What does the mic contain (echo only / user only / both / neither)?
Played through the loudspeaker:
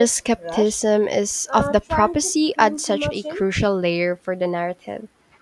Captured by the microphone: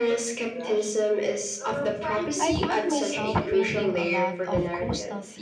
both